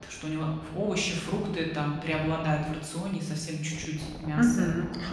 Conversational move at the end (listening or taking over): taking over